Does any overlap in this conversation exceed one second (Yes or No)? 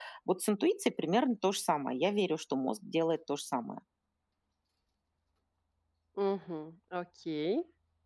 No